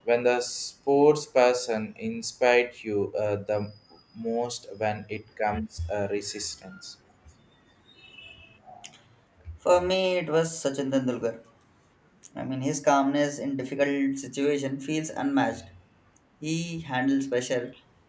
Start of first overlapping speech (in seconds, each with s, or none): none